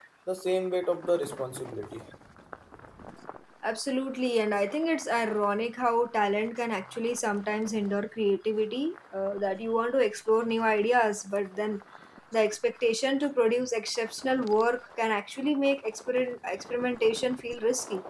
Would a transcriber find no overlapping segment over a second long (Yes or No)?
Yes